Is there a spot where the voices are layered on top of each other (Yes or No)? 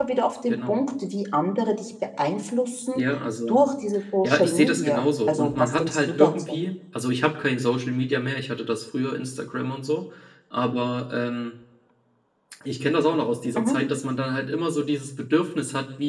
Yes